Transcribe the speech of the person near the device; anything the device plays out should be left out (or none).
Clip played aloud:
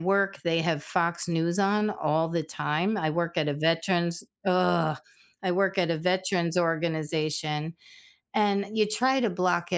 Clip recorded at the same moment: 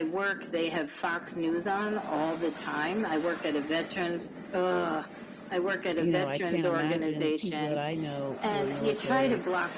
you know, I can't imagine the people that I know who are military,